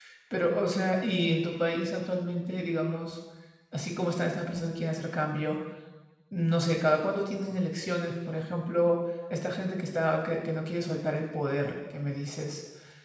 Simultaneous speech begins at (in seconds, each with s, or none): none